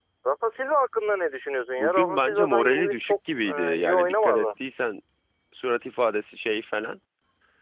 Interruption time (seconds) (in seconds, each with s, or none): 1.8 s